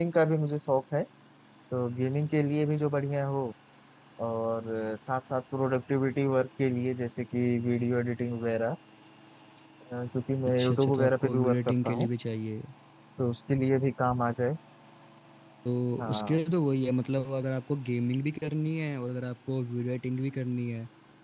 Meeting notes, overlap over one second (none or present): present